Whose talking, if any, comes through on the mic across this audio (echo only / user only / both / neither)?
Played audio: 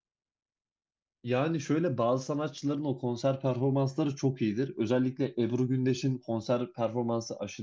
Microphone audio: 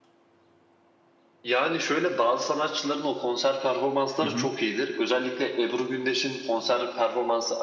both